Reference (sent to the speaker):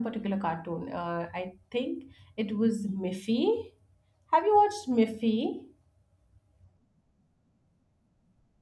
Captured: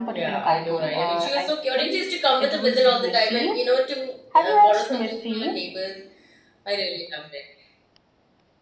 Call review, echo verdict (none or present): present